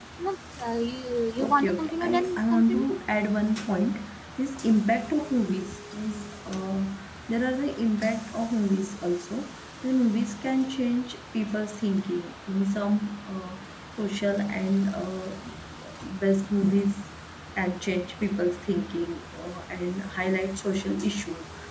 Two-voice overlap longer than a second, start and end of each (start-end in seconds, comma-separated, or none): 1.4-2.8